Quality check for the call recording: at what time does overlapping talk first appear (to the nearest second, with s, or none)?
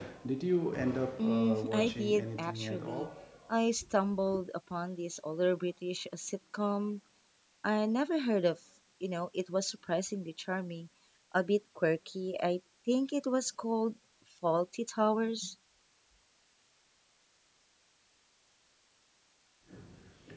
1 s